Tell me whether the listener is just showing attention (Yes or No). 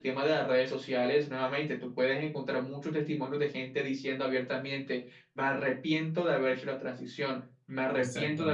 Yes